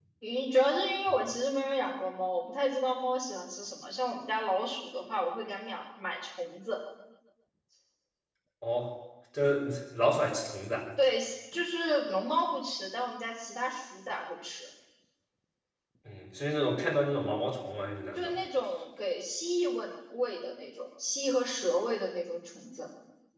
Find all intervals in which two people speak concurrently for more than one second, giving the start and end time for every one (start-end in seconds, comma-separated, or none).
none